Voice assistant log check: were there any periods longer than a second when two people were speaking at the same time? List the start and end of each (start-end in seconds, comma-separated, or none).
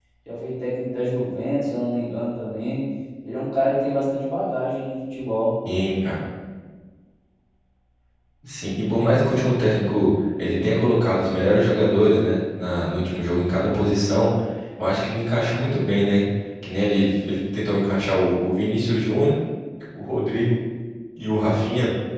none